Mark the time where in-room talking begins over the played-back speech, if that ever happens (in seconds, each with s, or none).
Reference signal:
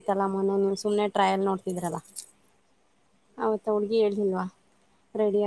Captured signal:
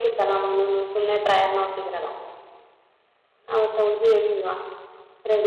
none